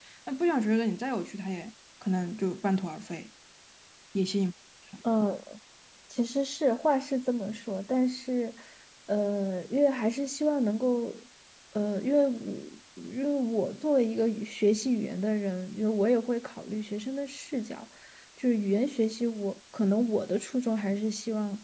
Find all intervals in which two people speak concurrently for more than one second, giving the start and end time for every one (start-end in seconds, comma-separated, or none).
none